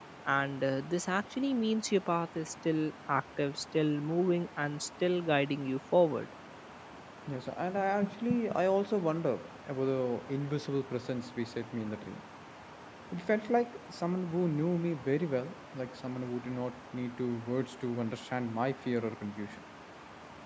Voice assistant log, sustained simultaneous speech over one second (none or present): none